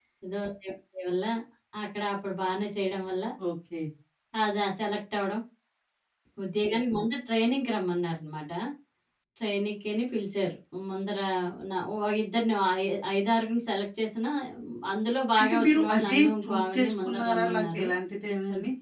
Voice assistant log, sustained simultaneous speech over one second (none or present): present